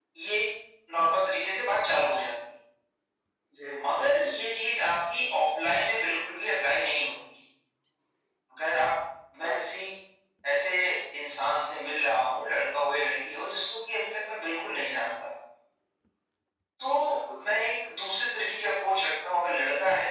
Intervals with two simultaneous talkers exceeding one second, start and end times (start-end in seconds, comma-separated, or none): none